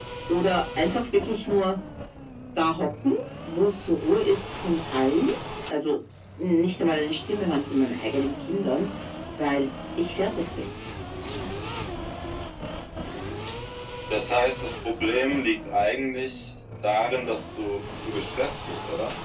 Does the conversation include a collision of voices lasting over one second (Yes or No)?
No